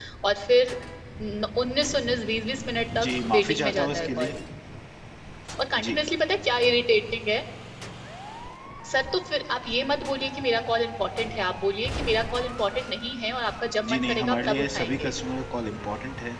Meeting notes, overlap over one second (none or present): present